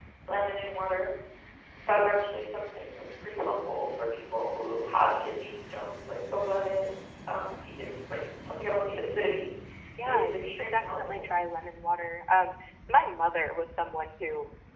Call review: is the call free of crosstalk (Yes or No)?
No